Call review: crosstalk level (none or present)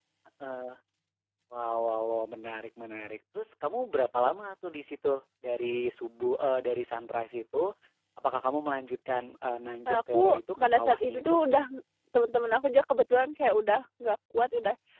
present